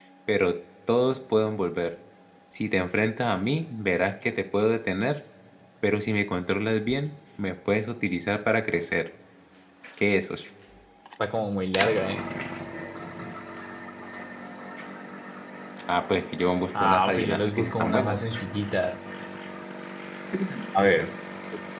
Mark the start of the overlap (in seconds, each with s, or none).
16.7 s